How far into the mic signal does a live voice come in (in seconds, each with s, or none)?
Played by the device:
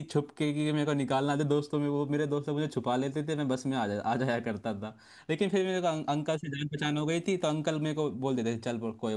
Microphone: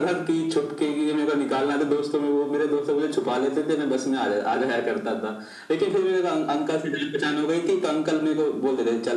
none